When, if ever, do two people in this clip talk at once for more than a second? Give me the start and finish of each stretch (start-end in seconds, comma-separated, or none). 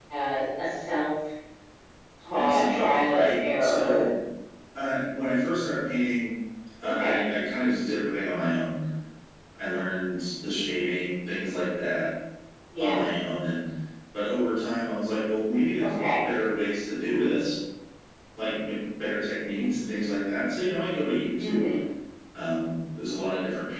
2.3-4.1